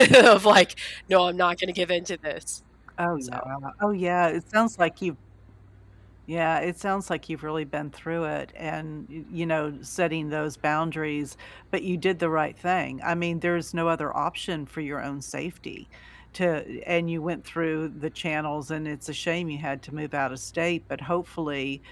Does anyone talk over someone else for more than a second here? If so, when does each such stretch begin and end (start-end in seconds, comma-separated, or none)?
none